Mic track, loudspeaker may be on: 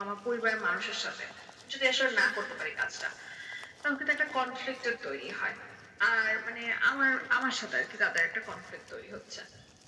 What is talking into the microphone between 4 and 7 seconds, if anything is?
echo only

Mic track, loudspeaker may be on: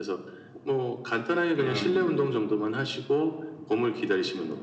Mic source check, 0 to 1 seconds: echo only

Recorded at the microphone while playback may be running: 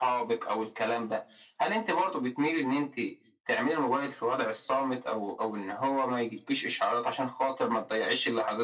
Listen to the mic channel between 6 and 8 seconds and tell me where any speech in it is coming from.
echo only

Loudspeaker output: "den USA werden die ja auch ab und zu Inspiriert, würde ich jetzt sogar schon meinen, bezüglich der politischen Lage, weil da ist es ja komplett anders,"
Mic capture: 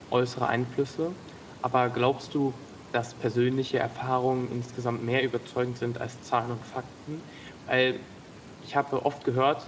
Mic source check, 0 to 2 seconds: user only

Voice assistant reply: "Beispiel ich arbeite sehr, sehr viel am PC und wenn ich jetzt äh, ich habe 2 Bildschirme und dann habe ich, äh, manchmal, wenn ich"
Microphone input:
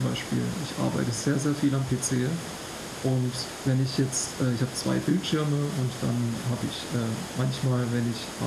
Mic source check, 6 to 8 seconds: echo only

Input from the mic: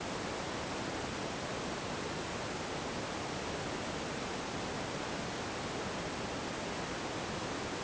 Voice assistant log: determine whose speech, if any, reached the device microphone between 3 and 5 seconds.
neither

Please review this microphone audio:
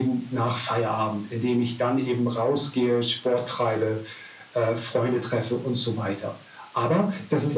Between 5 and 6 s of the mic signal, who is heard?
echo only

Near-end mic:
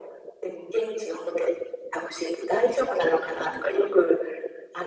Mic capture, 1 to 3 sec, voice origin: echo only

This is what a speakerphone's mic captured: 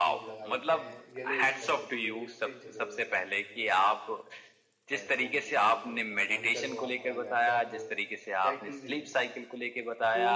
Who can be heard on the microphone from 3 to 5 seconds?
both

